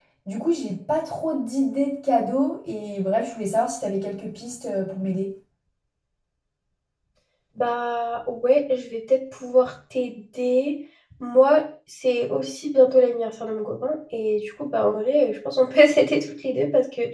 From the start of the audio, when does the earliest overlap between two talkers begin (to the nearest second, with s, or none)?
none